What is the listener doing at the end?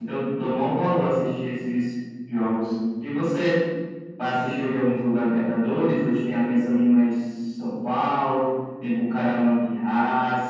listening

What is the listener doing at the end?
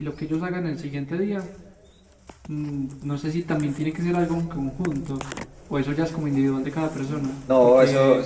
taking over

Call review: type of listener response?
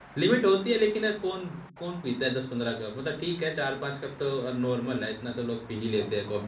taking over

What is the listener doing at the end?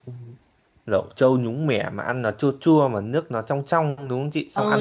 taking over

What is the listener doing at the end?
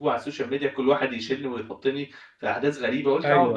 listening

